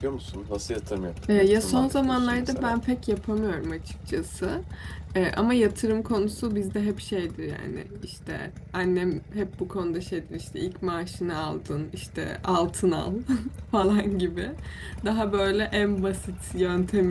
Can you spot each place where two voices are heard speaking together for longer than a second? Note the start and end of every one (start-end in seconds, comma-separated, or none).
1.4-2.8